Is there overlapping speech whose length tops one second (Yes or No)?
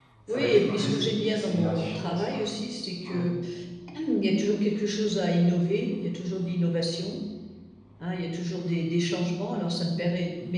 Yes